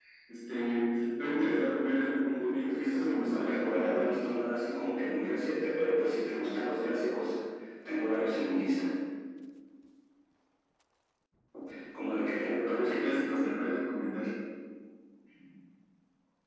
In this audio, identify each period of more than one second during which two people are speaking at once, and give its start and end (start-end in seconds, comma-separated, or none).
2.2-4.1